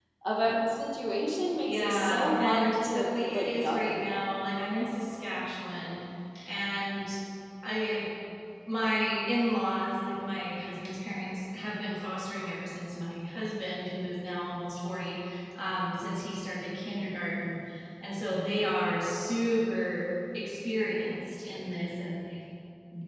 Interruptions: present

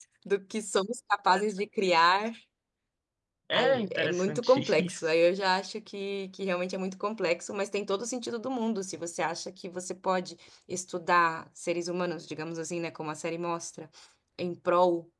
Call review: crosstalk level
present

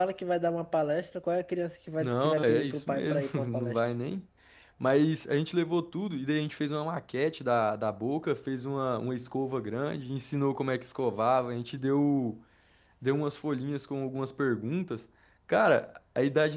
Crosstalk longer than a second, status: present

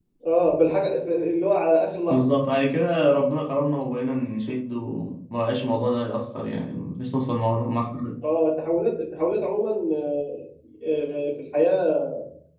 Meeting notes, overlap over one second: none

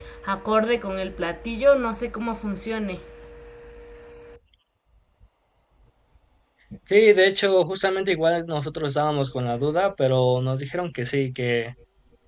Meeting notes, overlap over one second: none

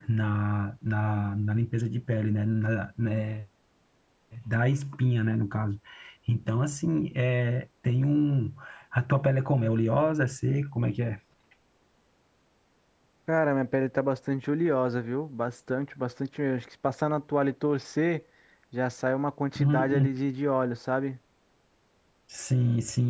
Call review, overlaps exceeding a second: none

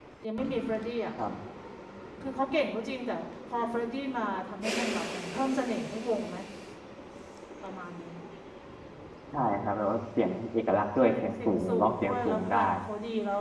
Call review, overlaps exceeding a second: present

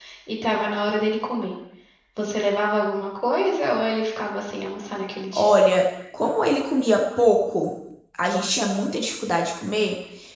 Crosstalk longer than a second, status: none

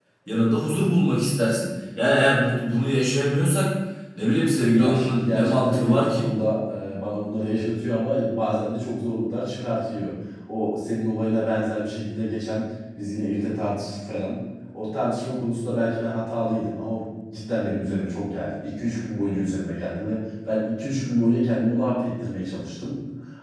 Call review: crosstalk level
present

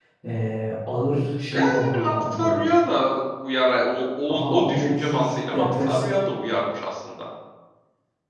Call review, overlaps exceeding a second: present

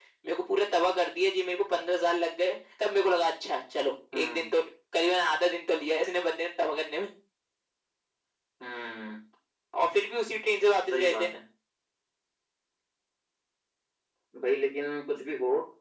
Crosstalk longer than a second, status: none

